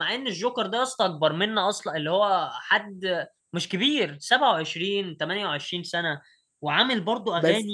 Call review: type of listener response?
listening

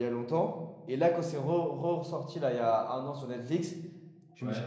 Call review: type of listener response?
listening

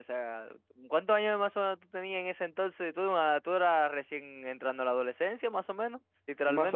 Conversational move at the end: taking over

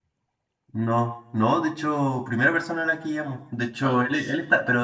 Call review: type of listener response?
listening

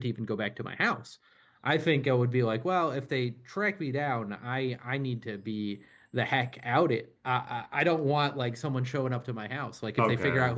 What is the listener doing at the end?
listening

